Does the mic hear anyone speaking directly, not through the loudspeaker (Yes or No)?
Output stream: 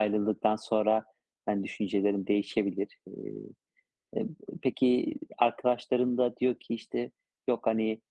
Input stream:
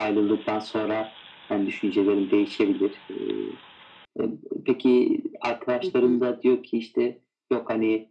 Yes